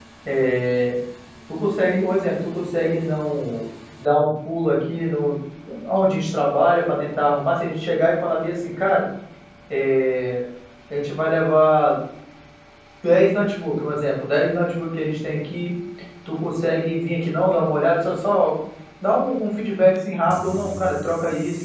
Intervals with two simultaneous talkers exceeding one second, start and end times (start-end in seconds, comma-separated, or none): none